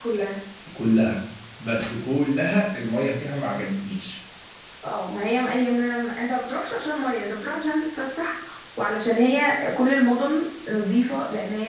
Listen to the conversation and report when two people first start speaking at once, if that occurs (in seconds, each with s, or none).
none